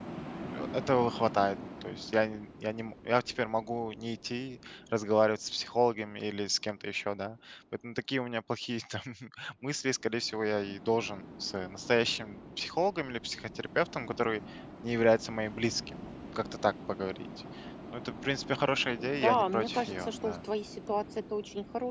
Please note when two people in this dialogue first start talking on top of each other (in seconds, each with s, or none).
19.0 s